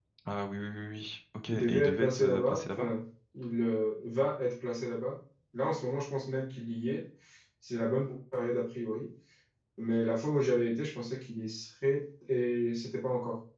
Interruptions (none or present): present